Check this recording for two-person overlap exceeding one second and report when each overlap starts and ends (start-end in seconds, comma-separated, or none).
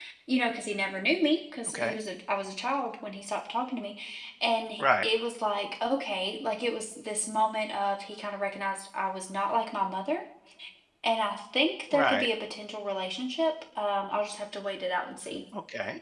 none